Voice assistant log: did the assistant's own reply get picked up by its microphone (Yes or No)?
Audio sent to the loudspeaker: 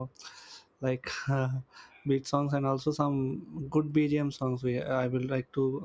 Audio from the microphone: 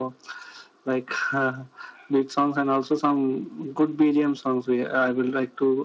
Yes